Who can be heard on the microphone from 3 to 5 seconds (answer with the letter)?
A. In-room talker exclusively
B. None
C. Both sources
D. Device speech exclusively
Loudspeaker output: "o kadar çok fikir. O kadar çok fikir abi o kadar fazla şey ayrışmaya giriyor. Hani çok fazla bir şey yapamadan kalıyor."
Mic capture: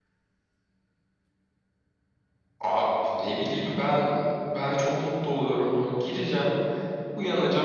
A